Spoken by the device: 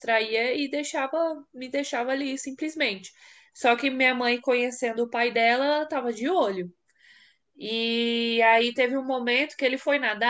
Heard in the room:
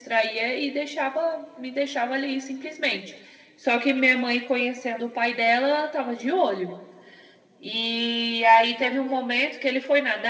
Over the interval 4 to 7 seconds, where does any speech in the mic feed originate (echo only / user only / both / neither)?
echo only